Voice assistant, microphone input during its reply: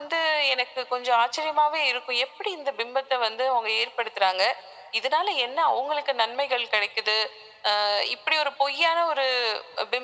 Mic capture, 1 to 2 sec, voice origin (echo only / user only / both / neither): echo only